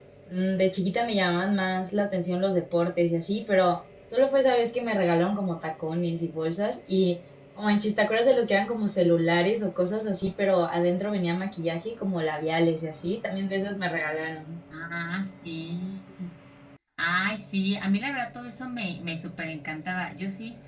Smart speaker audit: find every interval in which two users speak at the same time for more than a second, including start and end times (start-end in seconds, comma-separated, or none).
none